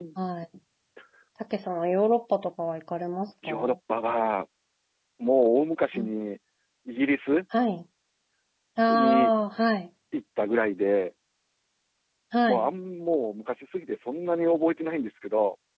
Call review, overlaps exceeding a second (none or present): none